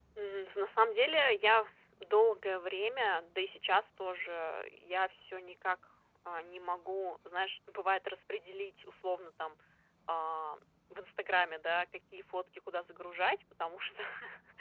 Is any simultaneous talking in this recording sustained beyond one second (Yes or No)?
No